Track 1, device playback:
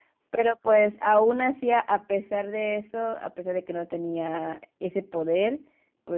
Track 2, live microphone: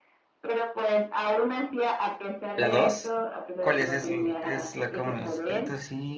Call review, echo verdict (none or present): present